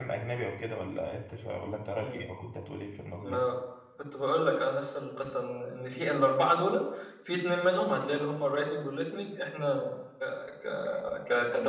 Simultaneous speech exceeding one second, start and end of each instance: none

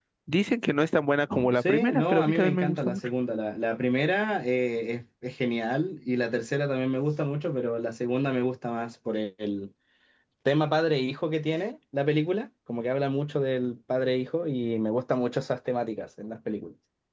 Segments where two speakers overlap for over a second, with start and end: 1.5-3.1

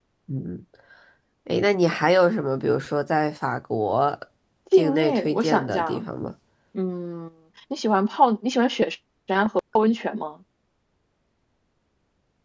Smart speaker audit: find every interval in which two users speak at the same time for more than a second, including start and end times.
4.7-6.1

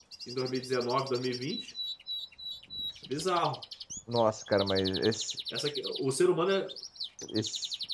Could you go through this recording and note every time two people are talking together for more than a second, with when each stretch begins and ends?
none

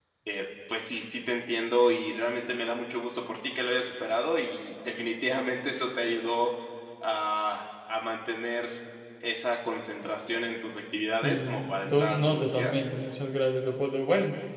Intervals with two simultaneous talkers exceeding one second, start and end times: 11.1-12.7

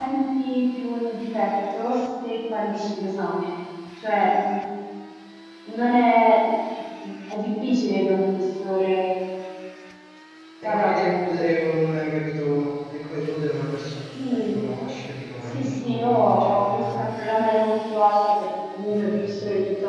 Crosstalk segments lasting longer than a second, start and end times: 15.5-17.1

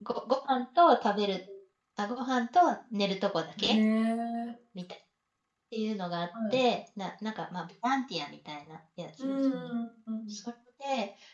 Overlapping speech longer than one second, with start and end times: none

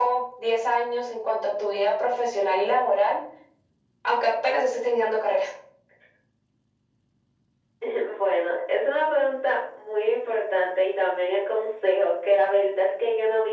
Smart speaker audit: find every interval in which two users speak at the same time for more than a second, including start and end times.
none

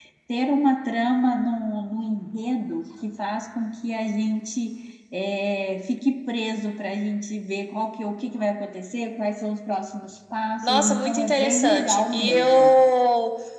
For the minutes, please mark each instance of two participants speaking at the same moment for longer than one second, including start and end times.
10.6-12.8

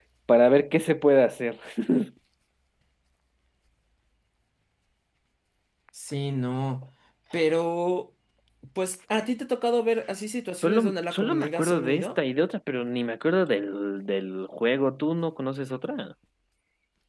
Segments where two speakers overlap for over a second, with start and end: 10.6-12.1

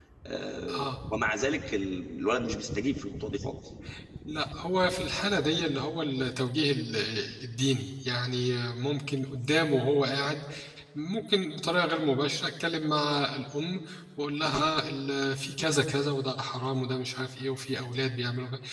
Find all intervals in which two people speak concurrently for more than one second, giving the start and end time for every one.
none

